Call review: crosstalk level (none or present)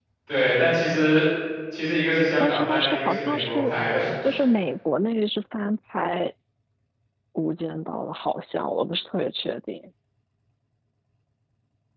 present